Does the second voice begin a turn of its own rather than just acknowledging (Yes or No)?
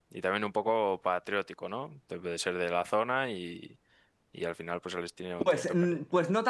Yes